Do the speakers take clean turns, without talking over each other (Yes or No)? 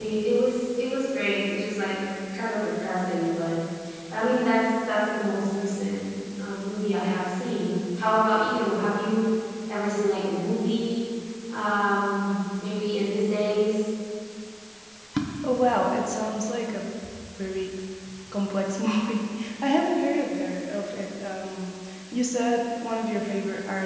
Yes